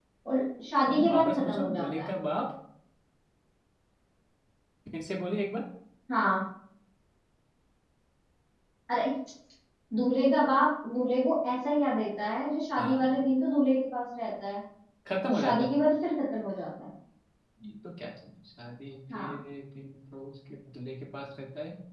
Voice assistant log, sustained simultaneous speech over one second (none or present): present